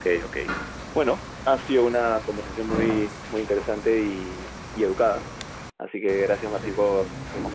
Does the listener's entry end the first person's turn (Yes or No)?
No